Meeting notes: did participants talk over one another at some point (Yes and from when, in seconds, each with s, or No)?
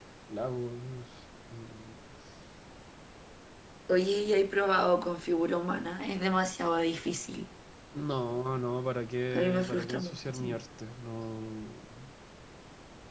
Yes, from 9.3 s